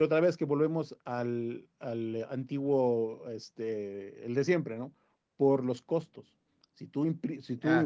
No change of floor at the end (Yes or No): Yes